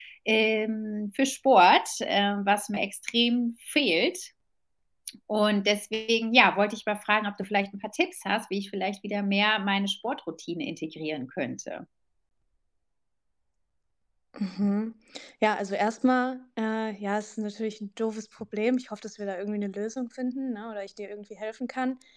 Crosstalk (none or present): none